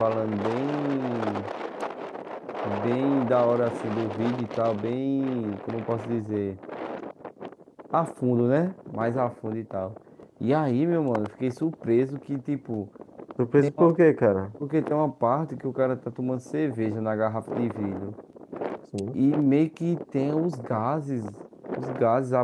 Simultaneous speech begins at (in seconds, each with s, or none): none